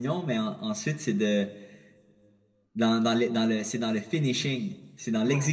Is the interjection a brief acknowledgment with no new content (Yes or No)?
Yes